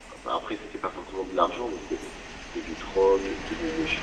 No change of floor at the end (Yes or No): Yes